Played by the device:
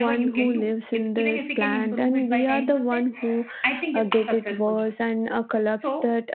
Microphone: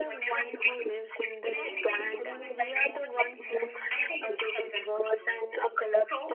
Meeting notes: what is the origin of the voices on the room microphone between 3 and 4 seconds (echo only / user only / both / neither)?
both